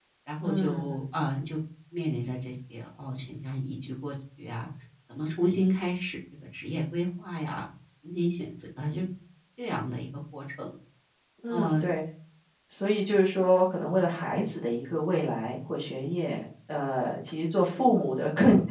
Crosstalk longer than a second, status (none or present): none